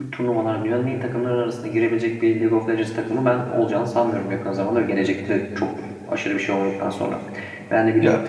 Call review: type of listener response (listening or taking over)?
listening